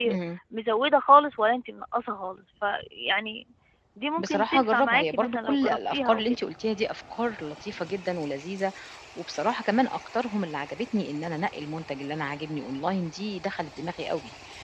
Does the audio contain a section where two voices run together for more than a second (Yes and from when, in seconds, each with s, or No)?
Yes, from 4.2 s